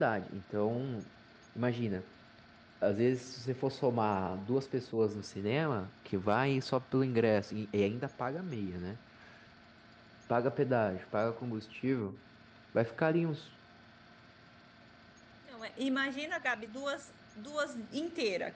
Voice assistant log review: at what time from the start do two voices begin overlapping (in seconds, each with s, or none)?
none